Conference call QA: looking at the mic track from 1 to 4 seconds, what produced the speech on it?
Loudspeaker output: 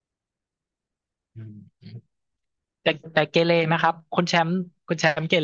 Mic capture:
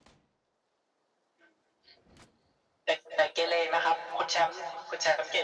echo only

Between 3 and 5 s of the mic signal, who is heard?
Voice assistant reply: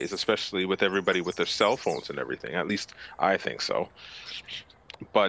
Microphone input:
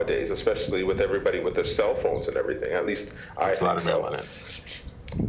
both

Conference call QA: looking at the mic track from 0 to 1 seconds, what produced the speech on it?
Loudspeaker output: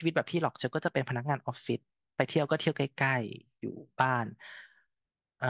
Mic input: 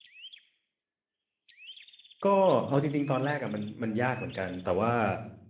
neither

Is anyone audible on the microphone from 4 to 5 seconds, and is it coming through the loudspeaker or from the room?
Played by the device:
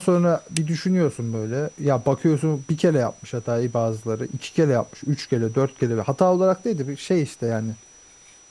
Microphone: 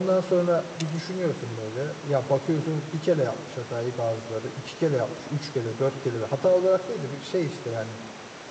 echo only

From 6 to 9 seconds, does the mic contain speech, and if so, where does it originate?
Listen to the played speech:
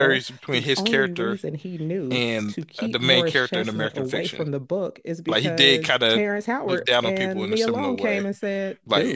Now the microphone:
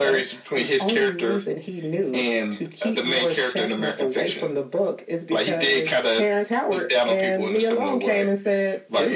echo only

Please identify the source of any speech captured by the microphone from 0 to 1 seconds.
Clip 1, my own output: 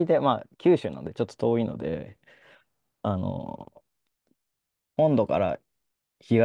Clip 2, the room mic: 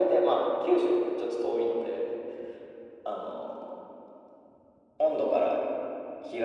echo only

